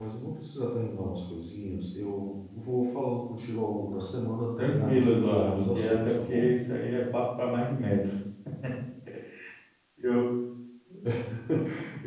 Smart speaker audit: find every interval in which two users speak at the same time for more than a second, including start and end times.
4.6-6.6

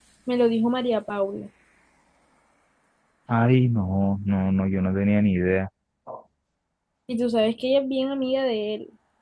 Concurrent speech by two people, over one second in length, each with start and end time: none

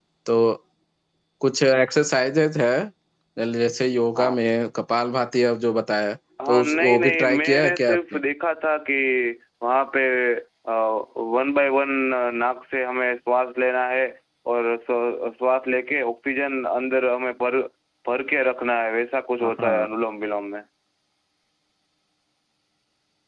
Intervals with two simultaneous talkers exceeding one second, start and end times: 6.5-8.2

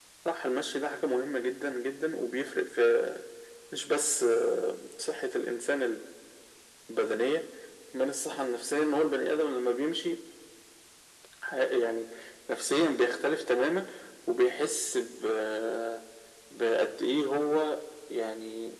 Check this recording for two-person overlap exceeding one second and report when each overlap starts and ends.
none

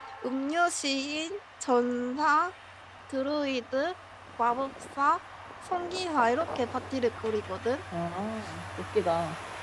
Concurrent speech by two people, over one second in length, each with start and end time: none

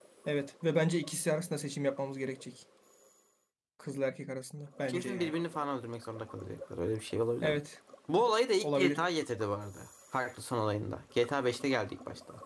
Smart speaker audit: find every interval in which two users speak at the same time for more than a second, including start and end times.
none

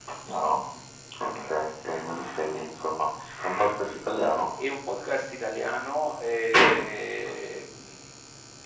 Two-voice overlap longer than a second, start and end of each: none

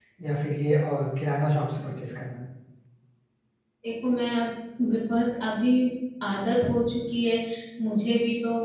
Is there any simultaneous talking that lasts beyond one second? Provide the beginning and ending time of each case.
none

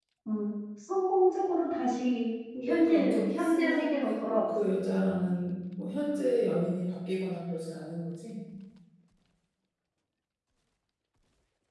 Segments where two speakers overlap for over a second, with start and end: 2.6-4.5

